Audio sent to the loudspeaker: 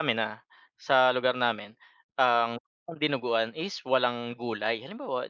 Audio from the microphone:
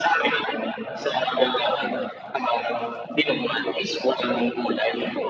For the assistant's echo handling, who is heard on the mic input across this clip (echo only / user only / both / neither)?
both